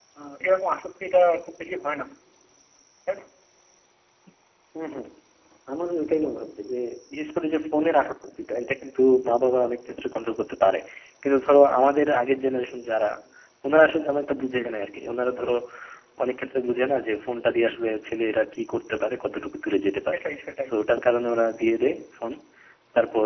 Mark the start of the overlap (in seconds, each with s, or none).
none